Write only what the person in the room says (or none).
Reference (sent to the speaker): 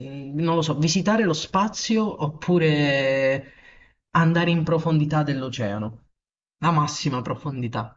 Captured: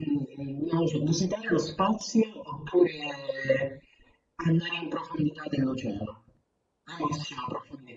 none